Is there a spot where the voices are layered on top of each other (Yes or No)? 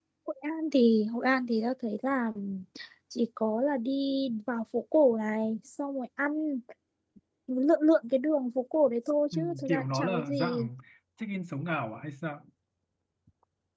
Yes